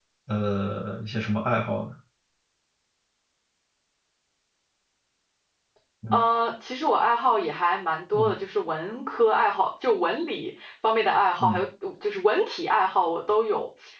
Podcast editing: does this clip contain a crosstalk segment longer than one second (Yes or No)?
No